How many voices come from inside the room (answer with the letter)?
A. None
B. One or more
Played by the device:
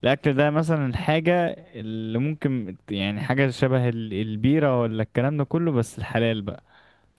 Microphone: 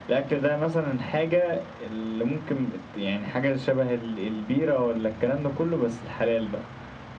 A